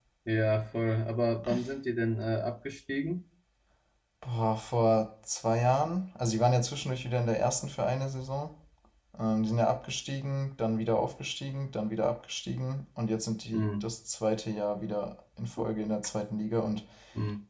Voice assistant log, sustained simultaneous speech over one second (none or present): none